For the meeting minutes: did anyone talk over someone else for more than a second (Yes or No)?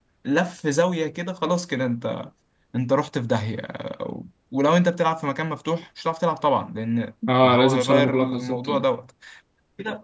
Yes